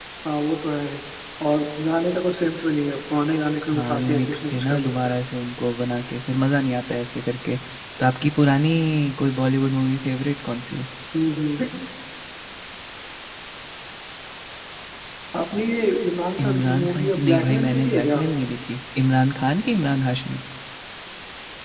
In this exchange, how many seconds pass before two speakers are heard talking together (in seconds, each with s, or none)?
3.7 s